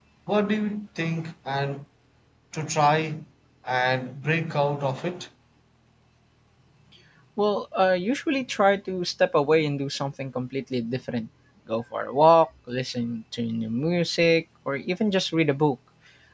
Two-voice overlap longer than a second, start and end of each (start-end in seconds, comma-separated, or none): none